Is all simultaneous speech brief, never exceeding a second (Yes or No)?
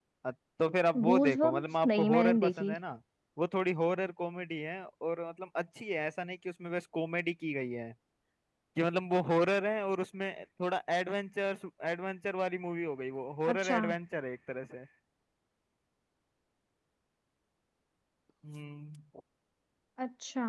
No